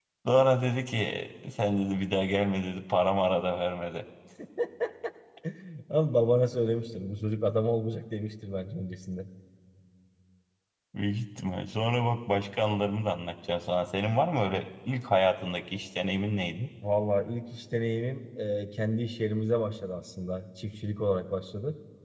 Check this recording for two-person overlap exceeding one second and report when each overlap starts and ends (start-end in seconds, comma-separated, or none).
none